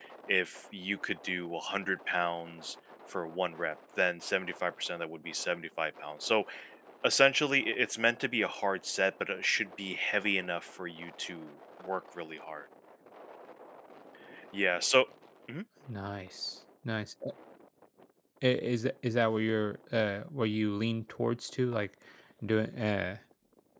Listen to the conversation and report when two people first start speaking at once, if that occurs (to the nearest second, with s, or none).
none